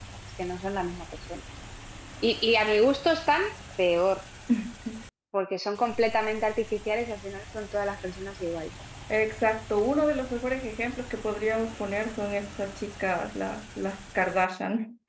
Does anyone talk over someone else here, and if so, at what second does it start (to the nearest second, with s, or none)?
none